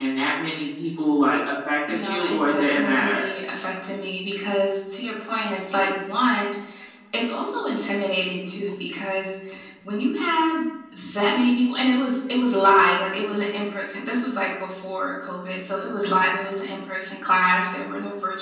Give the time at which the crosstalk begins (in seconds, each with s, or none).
1.9 s